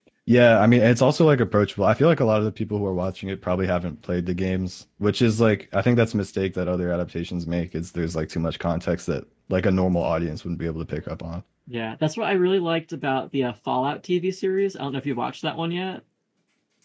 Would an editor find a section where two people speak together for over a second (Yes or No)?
No